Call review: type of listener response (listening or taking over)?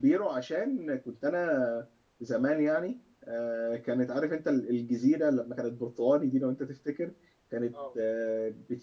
listening